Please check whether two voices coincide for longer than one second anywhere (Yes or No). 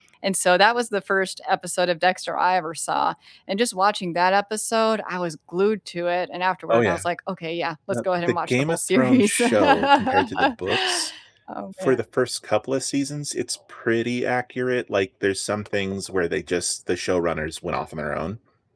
Yes